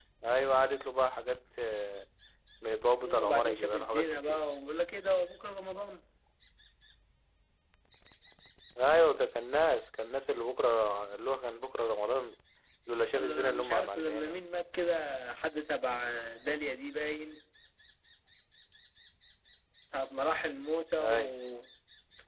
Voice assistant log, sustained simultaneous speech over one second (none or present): present